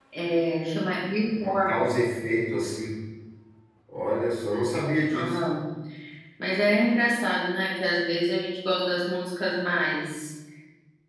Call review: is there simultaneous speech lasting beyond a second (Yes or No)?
No